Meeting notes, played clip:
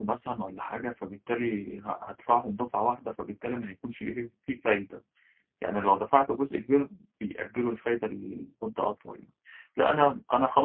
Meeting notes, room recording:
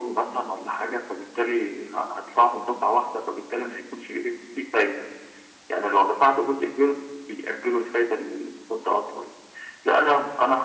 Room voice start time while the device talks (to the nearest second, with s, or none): none